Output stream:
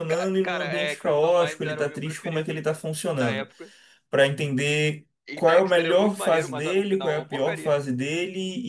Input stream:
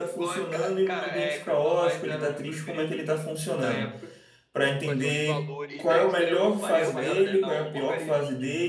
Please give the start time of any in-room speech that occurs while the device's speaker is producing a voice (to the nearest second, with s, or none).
5 s